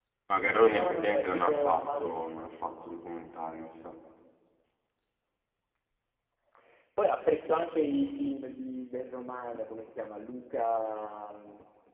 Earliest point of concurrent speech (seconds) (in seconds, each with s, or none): 0.7 s